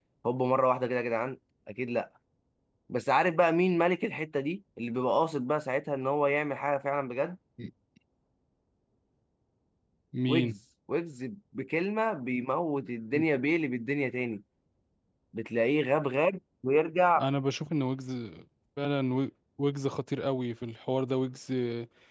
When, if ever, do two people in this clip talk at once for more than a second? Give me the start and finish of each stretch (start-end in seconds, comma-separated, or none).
none